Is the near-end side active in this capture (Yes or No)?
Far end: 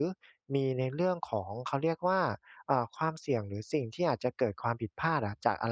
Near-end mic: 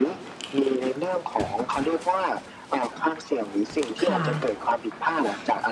Yes